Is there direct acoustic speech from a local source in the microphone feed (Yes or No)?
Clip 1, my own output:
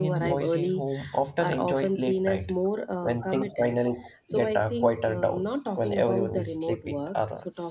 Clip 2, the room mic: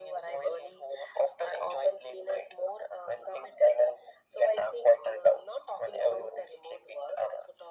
No